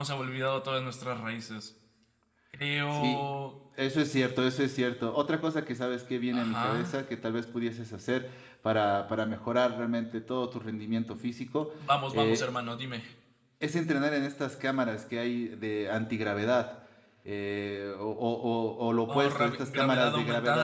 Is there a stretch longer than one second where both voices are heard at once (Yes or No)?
Yes